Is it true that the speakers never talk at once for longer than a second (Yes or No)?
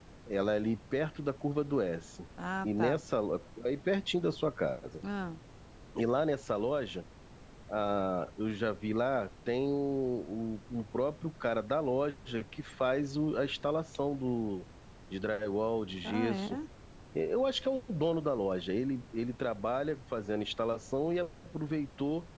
Yes